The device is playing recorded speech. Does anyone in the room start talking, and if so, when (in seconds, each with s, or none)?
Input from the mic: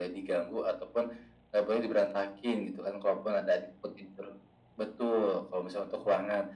none